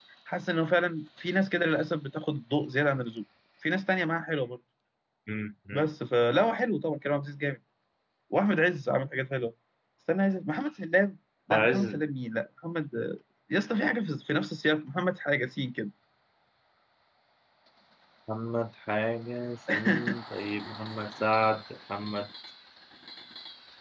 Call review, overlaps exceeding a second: none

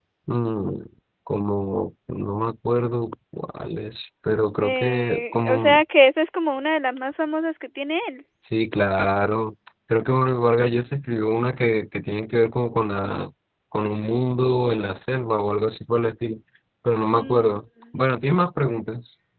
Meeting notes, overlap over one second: present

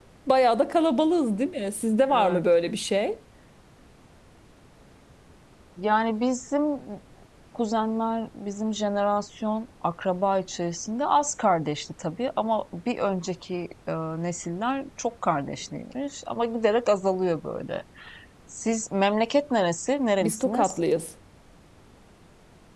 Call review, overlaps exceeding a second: none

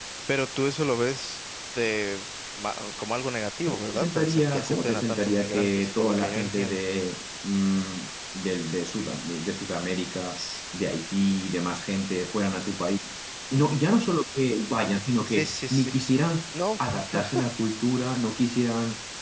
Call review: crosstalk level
present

